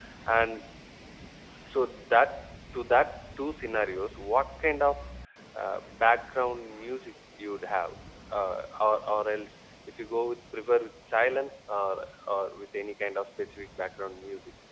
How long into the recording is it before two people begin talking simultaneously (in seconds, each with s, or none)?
none